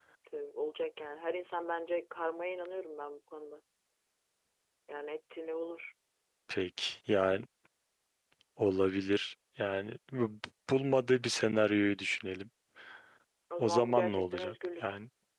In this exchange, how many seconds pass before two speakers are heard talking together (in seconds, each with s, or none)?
13.6 s